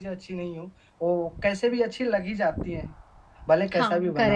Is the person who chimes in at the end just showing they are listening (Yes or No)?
No